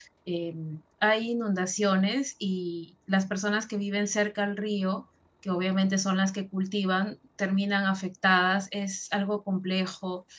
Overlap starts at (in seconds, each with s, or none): none